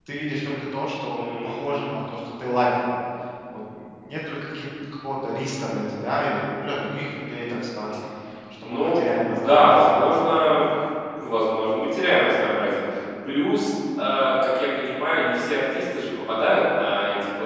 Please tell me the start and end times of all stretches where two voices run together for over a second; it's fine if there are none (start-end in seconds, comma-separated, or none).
8.6-10.0